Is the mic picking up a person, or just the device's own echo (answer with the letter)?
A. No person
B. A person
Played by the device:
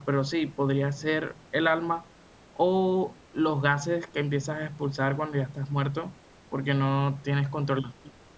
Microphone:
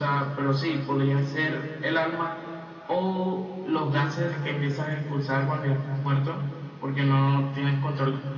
A